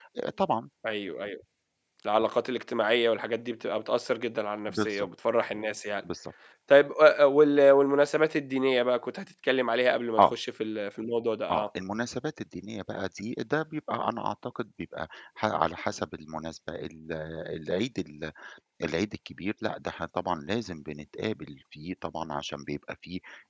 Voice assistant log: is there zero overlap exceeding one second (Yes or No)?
Yes